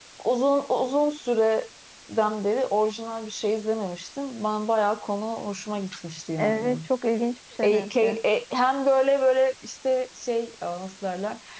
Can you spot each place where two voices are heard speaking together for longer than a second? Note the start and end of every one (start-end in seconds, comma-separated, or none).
none